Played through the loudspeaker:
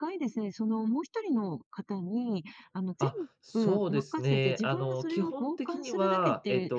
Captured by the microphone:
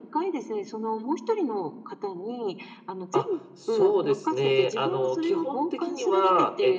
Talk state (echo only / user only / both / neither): echo only